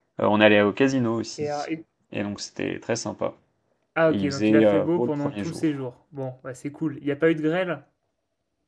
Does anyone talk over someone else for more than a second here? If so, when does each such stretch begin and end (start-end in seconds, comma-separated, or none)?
4.1-5.6